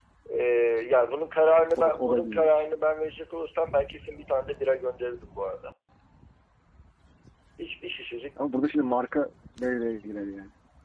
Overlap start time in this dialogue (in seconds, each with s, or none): 1.4 s